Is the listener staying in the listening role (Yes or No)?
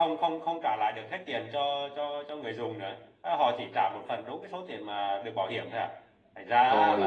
No